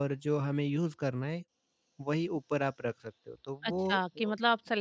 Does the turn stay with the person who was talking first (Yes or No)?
No